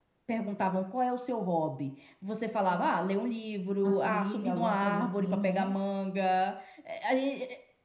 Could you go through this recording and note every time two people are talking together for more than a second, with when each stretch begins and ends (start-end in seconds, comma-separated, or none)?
3.8-5.7